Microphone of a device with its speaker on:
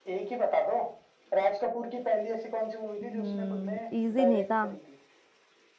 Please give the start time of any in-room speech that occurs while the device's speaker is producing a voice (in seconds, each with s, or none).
3.0 s